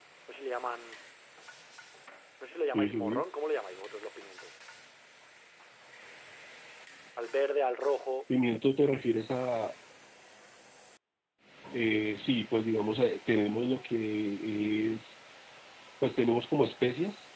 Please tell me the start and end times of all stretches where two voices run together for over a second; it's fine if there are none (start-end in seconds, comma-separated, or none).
none